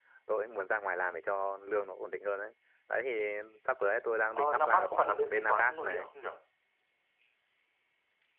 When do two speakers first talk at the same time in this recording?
4.3 s

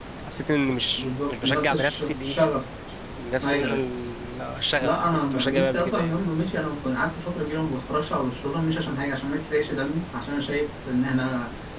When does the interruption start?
1.0 s

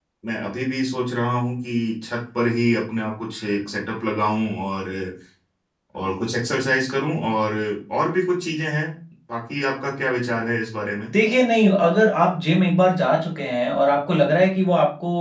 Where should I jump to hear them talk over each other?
none

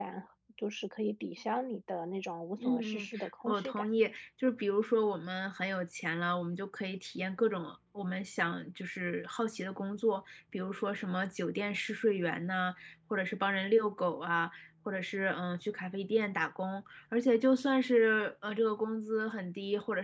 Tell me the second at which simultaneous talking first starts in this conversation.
2.6 s

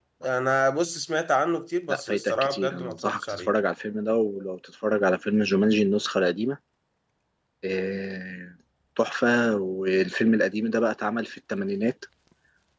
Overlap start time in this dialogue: 1.9 s

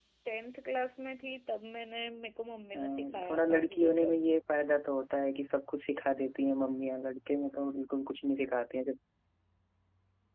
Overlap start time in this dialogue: 2.7 s

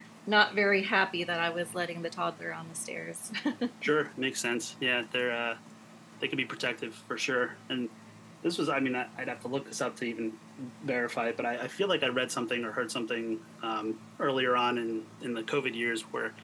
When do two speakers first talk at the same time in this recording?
none

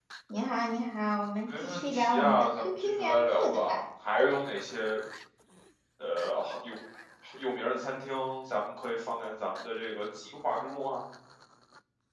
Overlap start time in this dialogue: 1.5 s

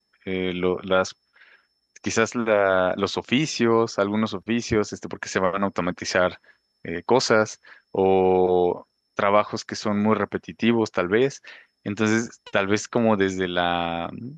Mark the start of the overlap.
none

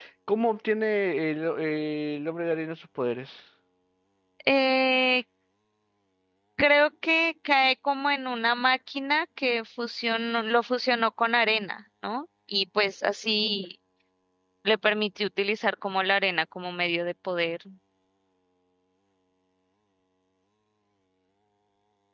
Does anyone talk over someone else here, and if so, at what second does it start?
none

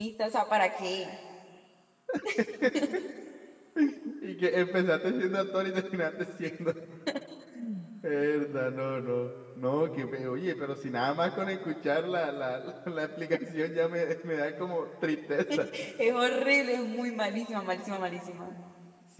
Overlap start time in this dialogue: none

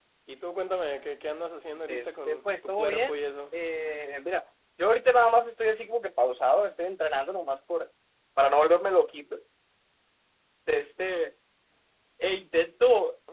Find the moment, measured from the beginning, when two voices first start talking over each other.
1.9 s

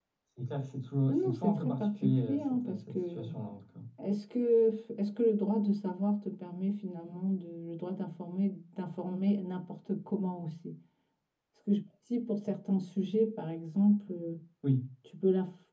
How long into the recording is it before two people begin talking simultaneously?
1.1 s

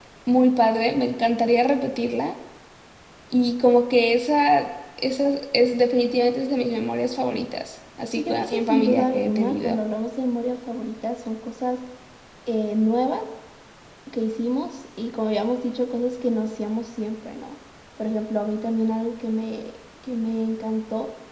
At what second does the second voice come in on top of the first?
8.1 s

